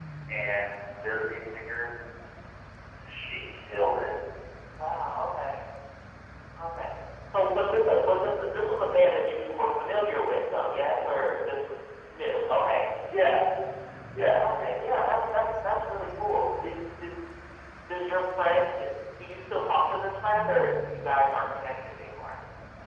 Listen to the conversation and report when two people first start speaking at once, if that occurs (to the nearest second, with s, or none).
none